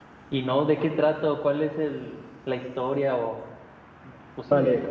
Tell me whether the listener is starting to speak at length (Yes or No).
Yes